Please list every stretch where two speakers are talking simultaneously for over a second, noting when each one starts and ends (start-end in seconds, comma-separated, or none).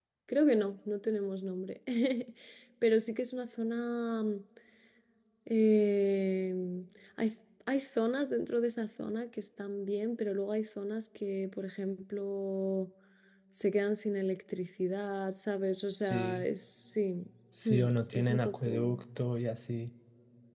17.6-19.0